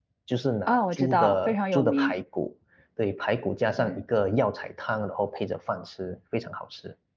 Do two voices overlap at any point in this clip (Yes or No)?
Yes